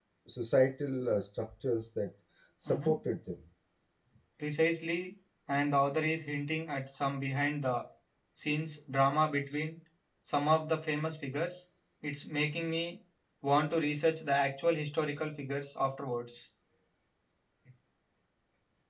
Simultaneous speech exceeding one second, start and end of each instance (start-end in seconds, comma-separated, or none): none